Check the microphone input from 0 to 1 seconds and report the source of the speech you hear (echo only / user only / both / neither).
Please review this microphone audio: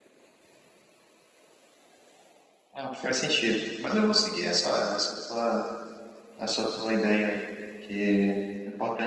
neither